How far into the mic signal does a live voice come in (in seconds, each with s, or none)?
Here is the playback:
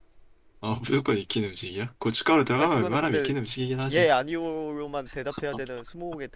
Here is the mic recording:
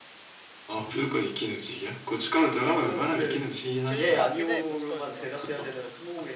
3.8 s